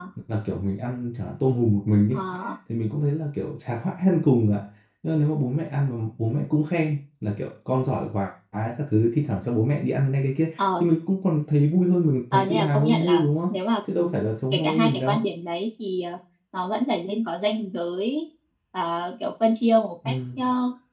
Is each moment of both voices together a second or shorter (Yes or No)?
No